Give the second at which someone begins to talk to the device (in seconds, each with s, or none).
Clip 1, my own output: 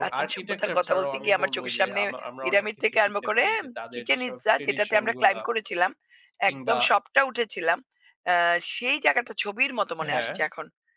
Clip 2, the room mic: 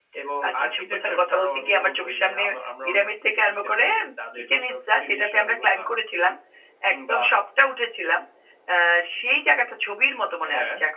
none